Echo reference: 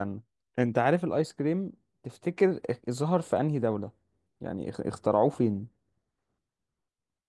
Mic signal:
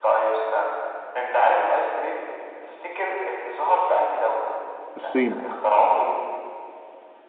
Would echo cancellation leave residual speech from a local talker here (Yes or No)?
Yes